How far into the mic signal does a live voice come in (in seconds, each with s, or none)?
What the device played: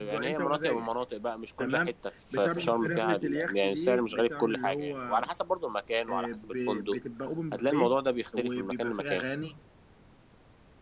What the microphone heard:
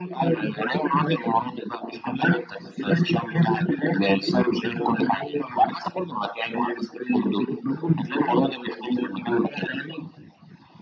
none